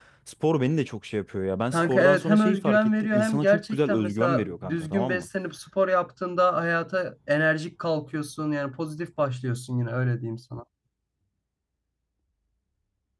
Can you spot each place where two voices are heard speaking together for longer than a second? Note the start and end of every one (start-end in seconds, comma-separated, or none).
1.7-5.3